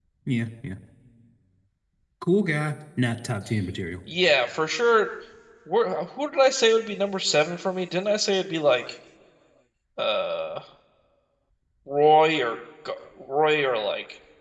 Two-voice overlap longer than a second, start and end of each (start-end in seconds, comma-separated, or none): none